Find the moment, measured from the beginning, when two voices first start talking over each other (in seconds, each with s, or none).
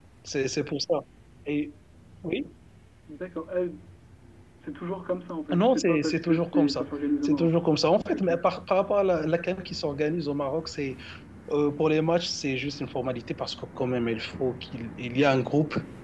5.5 s